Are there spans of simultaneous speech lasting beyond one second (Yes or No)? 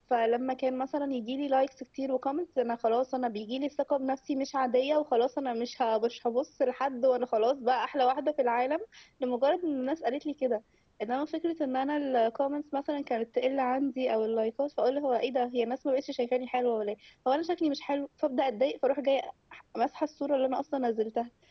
No